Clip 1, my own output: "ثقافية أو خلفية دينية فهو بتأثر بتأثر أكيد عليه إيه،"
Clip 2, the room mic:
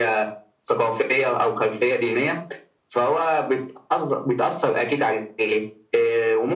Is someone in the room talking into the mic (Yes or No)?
No